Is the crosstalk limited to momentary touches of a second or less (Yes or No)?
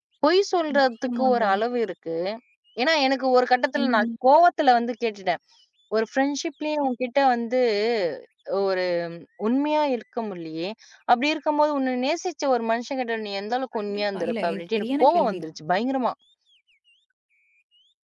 No